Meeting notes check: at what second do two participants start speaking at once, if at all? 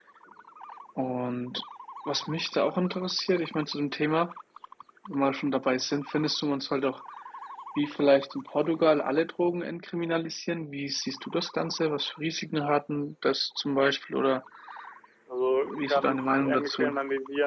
16 s

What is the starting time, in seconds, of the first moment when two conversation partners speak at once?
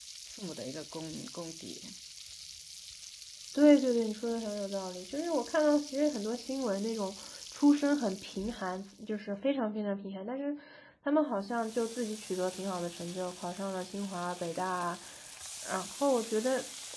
none

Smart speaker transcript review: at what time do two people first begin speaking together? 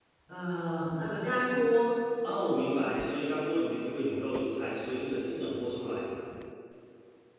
none

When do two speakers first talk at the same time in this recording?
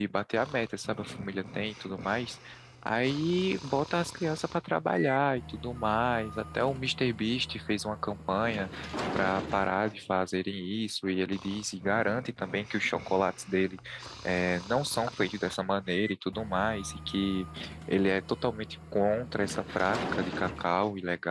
none

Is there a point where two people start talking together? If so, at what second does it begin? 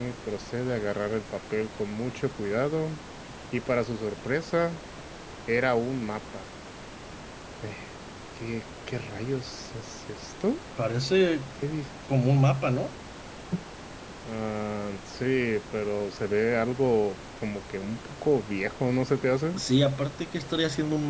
none

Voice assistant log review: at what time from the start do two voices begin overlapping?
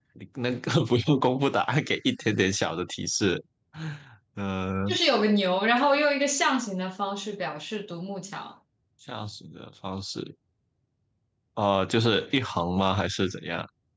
none

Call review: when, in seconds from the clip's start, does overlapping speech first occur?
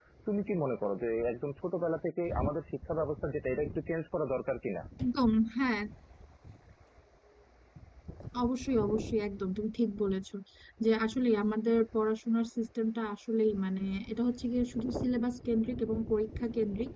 none

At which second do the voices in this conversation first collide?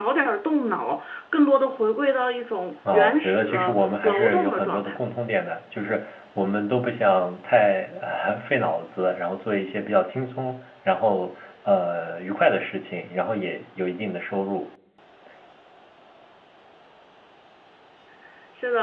3 s

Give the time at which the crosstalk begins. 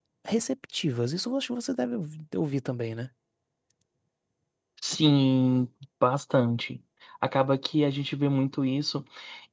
none

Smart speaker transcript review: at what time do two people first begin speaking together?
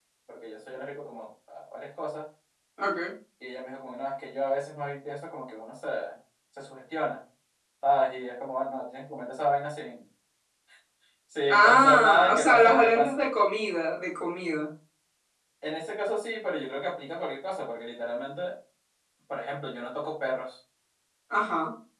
11 s

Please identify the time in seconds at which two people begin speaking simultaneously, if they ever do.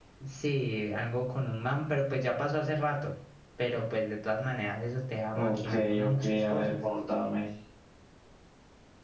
5 s

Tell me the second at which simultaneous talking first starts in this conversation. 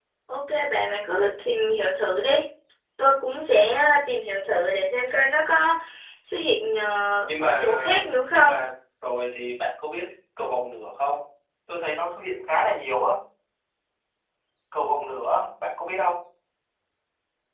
7 s

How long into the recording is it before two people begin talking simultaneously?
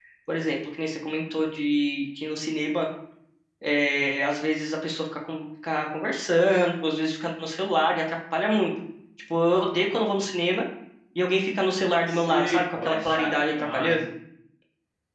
12 s

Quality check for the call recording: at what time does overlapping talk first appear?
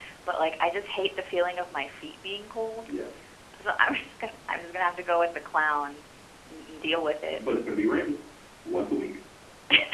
none

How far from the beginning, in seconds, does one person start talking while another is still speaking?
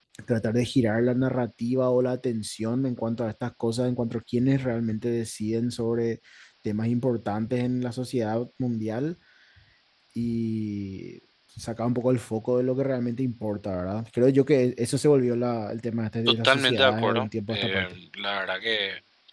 16 s

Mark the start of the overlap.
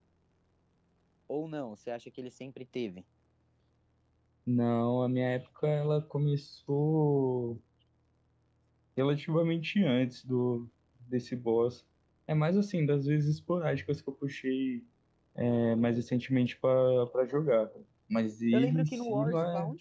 19 s

